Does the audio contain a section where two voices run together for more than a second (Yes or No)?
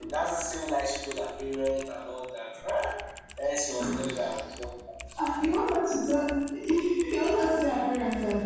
No